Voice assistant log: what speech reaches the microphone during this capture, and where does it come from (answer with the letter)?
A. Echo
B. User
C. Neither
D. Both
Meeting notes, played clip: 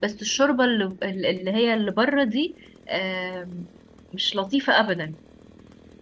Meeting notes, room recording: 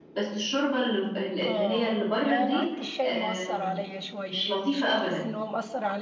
D